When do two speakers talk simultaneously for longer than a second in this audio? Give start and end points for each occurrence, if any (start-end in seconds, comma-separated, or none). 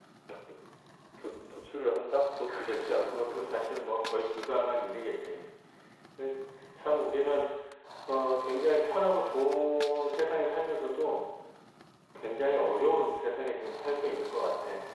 2.6-3.8